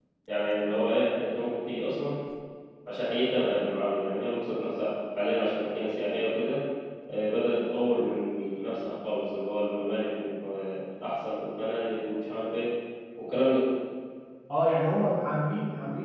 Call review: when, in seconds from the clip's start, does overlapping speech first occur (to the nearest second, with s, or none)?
none